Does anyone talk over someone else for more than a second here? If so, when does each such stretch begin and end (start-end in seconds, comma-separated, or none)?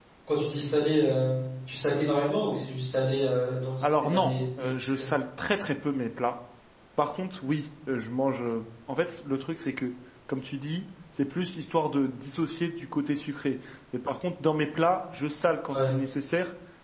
3.8-5.0